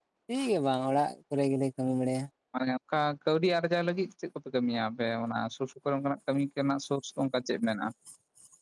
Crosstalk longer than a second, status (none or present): none